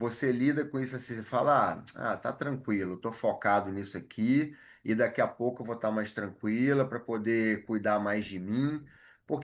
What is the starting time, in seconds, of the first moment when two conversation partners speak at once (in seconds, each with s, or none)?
none